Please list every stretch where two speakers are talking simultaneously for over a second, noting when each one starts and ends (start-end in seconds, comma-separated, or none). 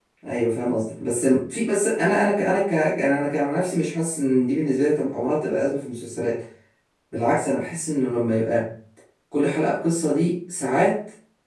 none